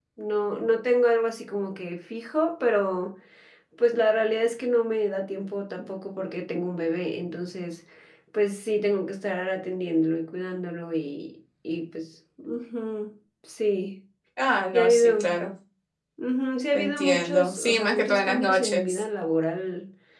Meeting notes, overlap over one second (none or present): present